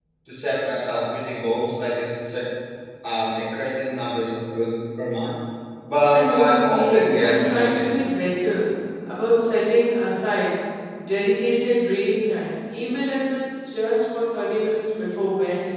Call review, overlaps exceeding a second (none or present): present